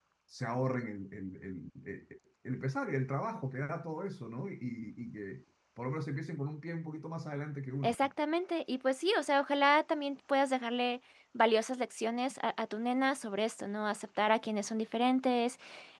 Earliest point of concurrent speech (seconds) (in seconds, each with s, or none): none